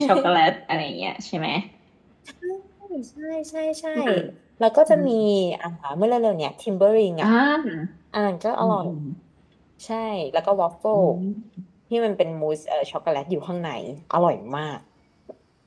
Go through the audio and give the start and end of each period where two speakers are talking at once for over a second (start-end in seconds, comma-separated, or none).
none